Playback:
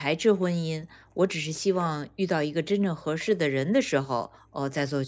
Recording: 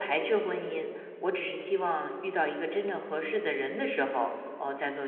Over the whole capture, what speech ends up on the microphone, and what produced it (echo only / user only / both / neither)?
echo only